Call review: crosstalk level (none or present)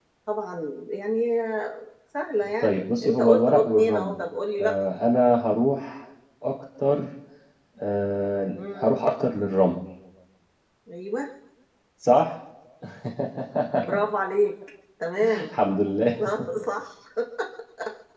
present